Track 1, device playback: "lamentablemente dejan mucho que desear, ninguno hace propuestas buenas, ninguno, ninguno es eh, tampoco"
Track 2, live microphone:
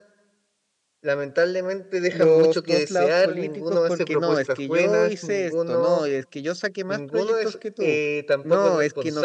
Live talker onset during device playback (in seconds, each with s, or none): 2.1 s